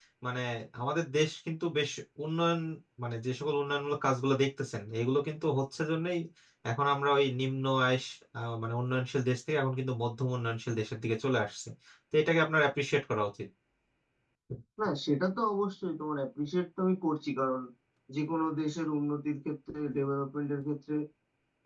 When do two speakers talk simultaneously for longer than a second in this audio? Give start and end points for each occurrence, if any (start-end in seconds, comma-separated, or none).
none